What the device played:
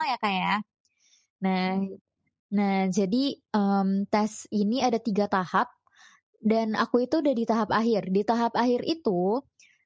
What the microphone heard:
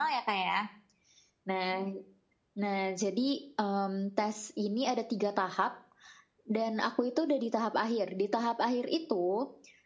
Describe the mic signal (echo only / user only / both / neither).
echo only